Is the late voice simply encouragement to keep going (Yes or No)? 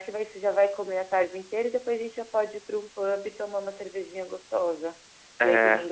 Yes